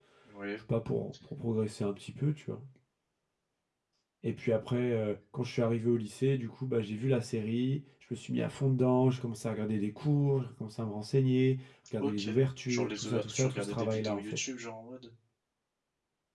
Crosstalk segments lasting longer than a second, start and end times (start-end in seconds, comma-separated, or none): 12.7-14.4